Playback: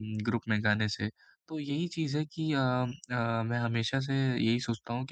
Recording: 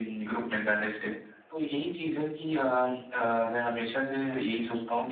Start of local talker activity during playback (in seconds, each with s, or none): none